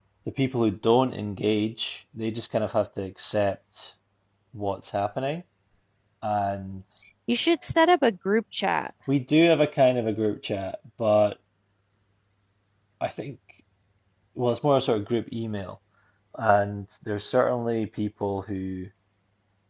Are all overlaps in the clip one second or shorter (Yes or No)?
Yes